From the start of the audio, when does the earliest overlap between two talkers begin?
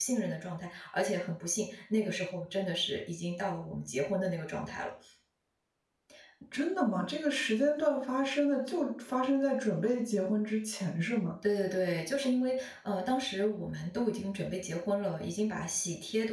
none

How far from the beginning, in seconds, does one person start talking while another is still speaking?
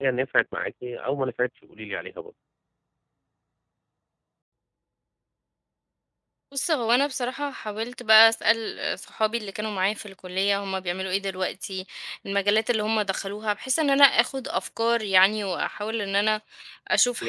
none

